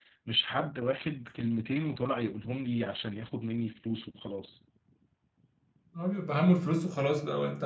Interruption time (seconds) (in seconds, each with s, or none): none